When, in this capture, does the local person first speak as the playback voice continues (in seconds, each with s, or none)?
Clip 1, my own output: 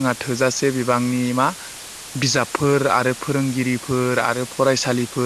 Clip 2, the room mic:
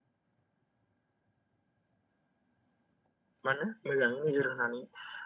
3.4 s